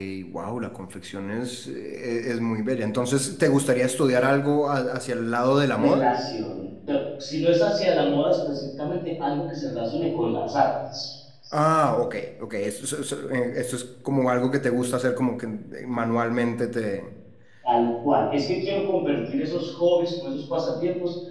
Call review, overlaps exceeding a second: none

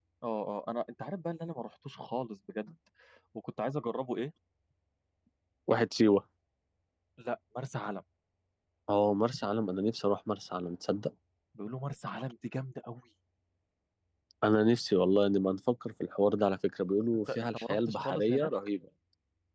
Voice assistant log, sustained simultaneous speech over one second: present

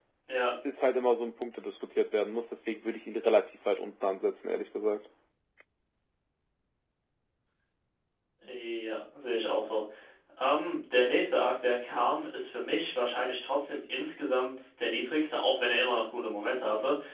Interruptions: none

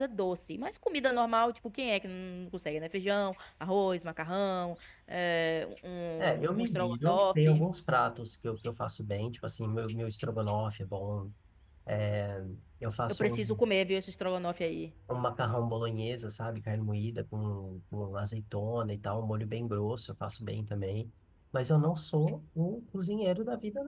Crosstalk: present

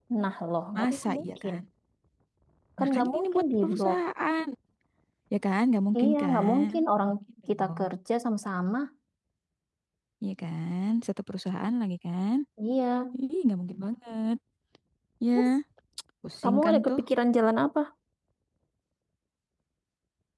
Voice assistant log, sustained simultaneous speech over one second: present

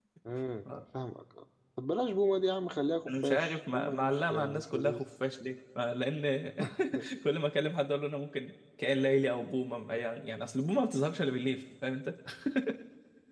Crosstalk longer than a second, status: present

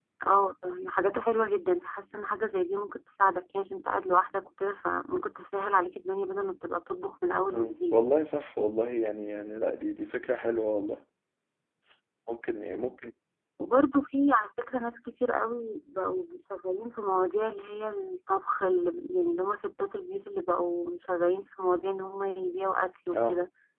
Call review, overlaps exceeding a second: none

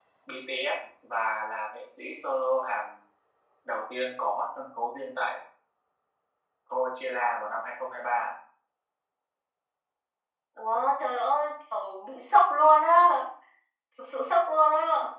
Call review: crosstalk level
none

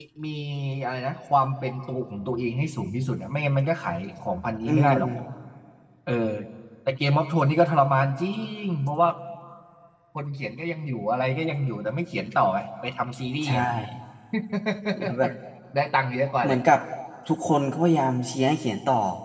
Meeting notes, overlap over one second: none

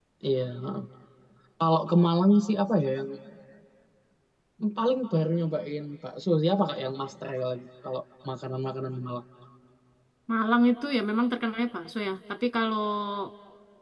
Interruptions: none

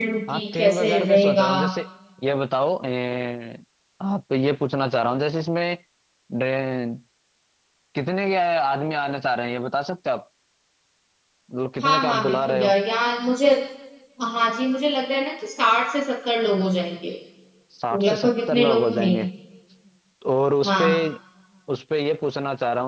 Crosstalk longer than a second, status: present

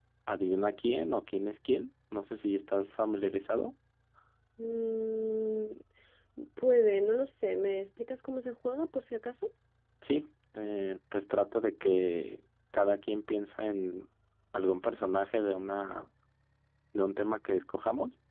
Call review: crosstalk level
none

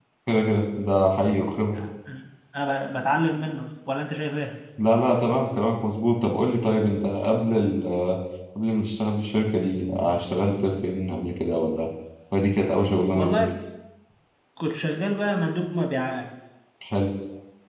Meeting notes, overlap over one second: none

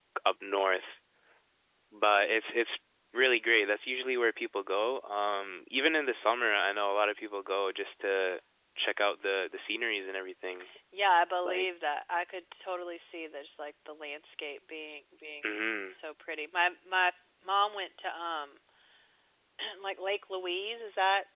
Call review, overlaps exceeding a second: none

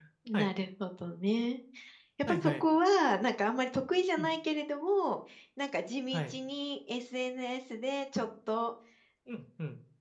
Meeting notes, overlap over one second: none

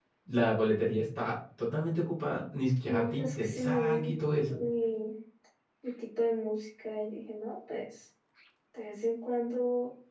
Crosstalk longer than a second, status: present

